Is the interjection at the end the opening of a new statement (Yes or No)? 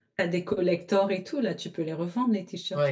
Yes